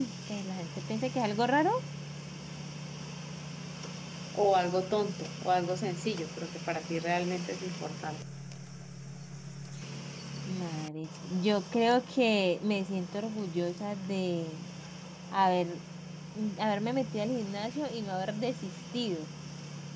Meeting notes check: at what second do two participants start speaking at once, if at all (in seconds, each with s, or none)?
none